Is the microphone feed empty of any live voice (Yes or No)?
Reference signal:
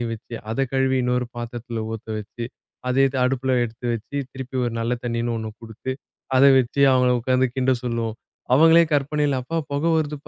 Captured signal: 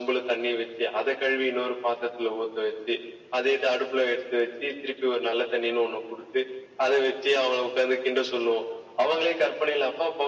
Yes